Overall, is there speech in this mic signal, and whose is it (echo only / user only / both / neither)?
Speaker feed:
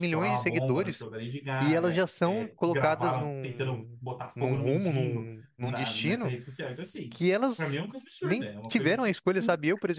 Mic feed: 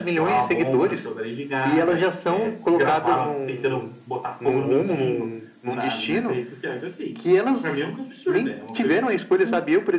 echo only